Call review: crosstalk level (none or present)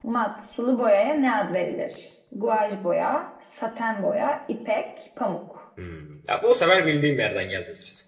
none